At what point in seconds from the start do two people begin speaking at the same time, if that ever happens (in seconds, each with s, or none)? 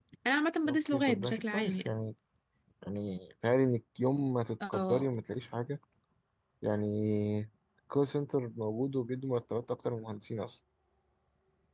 0.7 s